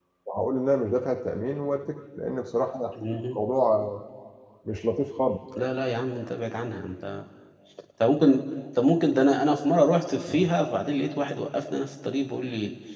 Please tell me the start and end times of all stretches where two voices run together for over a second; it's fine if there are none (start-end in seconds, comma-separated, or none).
none